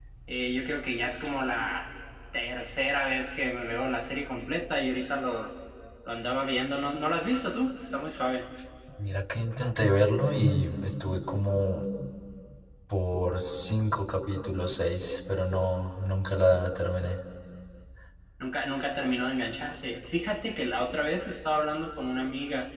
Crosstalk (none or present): none